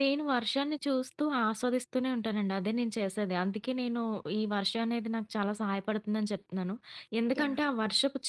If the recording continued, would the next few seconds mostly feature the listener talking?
No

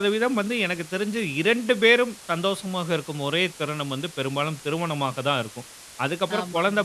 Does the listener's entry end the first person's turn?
No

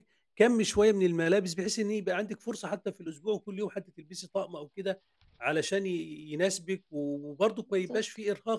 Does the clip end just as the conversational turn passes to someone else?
No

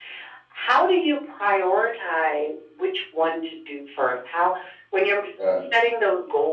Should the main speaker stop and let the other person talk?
No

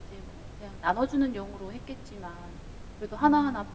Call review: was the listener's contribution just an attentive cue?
Yes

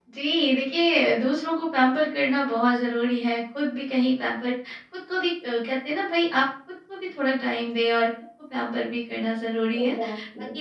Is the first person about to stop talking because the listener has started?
No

